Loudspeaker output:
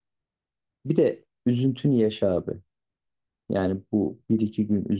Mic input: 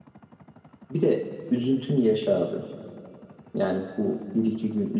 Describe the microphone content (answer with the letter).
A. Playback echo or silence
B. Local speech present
A